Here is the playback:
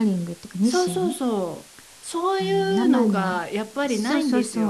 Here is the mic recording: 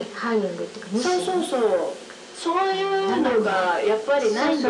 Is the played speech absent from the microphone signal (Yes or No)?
No